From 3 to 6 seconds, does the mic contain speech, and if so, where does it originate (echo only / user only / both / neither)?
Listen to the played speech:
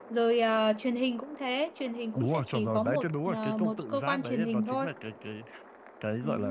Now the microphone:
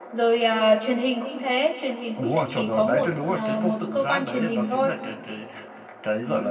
echo only